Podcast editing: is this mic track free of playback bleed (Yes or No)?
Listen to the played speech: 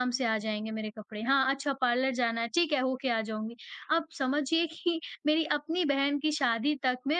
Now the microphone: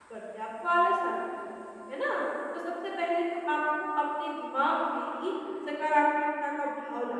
Yes